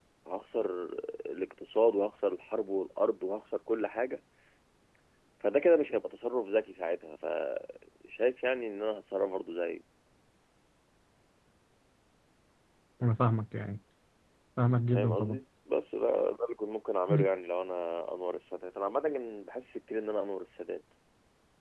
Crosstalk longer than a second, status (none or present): none